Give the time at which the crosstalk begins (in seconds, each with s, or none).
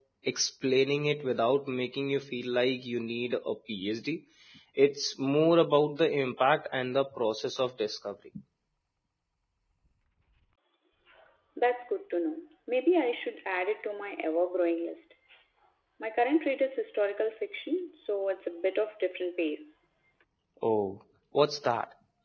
none